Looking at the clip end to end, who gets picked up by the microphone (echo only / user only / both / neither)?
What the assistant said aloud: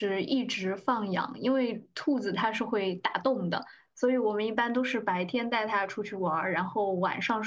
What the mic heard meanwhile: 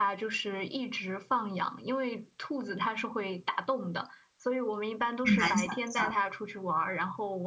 both